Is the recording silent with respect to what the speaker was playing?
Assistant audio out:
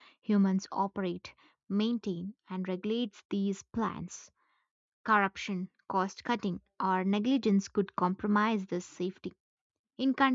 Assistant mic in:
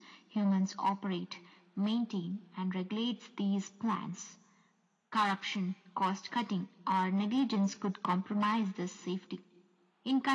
No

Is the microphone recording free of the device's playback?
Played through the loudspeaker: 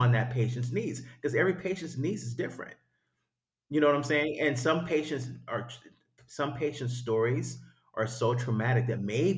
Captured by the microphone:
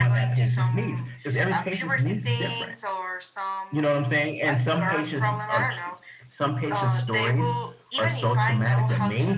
No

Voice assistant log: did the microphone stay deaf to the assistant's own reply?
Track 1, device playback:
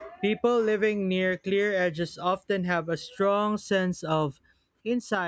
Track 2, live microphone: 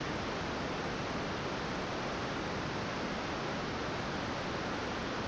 Yes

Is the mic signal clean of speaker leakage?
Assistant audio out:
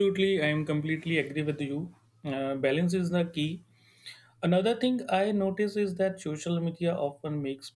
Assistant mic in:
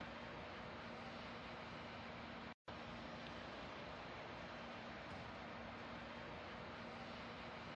Yes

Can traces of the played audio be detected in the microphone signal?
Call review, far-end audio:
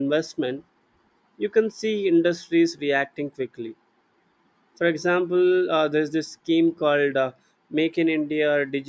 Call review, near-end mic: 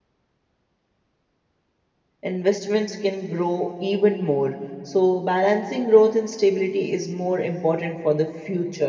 No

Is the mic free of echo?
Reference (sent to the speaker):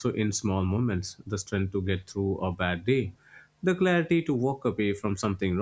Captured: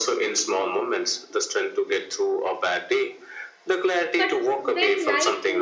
No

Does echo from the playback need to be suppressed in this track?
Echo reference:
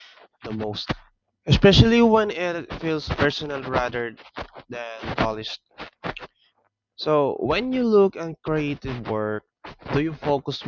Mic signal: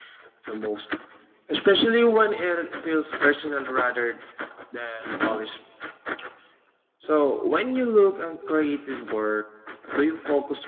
Yes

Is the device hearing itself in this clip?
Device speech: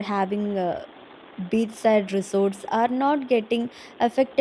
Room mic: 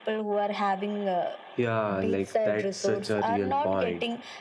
Yes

